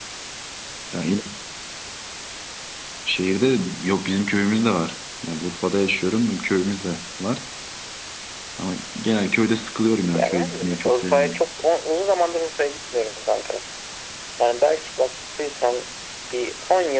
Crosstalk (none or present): present